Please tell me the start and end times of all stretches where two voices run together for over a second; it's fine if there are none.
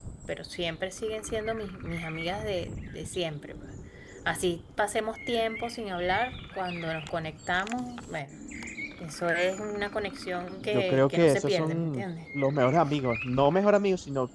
10.6-12.0

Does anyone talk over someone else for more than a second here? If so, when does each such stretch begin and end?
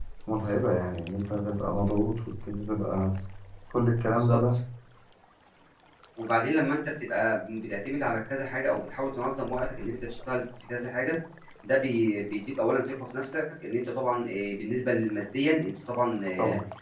none

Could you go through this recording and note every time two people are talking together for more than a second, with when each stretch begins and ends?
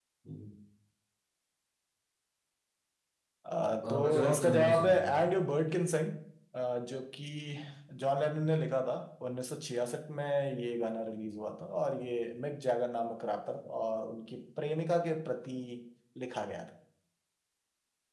3.9-5.2

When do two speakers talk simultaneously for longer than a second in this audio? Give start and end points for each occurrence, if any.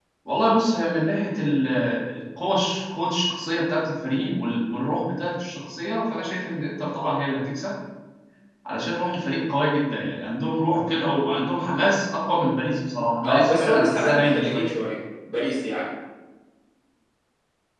13.2-14.7

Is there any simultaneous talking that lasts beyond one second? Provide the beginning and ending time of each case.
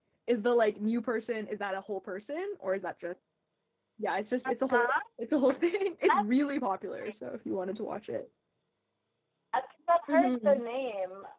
none

